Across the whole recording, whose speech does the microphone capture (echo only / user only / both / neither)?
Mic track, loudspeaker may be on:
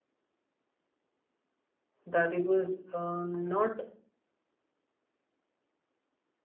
user only